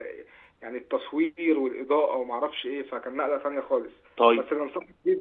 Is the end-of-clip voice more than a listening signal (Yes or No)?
No